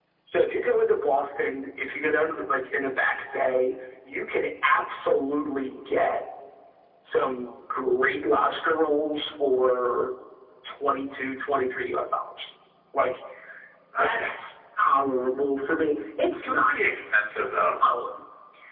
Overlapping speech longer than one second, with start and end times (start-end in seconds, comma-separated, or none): none